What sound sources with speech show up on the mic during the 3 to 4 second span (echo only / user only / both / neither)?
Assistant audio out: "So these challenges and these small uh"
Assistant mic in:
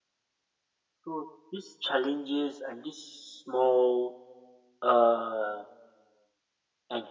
echo only